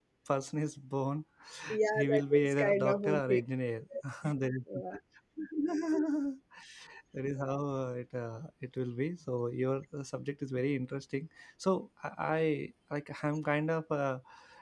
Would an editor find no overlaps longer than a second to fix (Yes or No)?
No